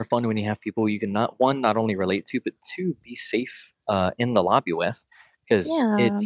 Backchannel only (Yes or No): Yes